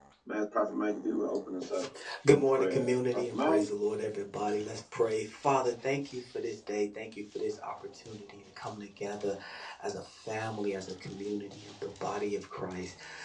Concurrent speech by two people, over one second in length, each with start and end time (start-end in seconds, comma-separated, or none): 2.3-3.6